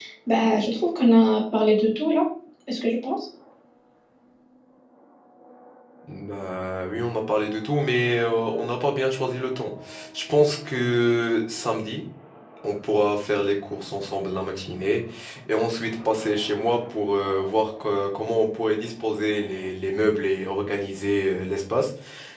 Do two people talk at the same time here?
No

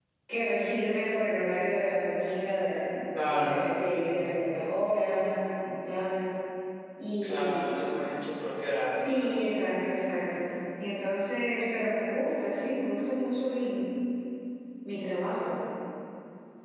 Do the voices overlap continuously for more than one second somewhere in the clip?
No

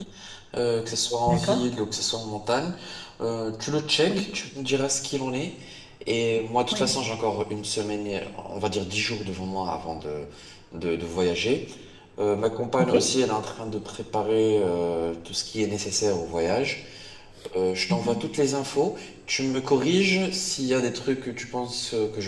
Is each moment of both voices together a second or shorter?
Yes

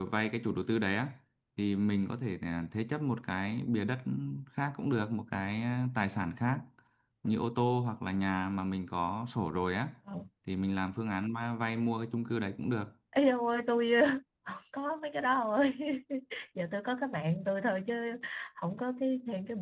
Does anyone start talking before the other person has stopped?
No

